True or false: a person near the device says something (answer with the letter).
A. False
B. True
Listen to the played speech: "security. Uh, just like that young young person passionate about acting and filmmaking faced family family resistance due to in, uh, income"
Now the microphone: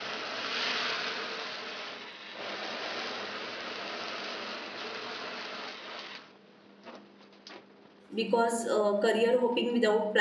B